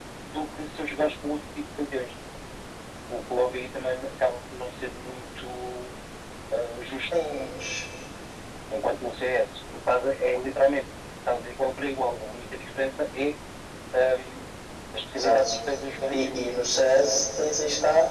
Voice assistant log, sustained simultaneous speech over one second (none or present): none